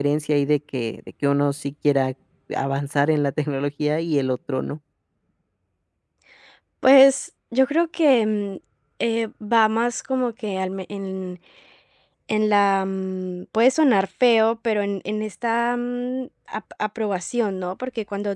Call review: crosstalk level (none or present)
none